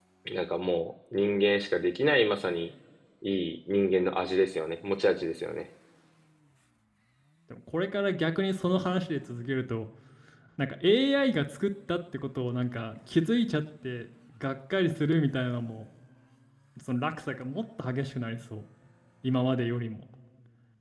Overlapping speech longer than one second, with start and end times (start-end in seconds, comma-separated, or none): none